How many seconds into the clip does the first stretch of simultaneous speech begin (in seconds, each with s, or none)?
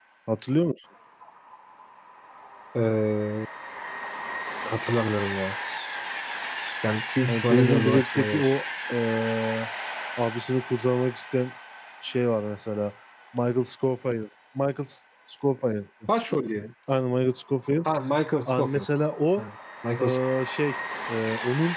7.3 s